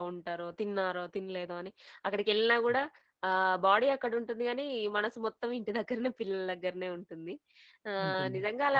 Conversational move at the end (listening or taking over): listening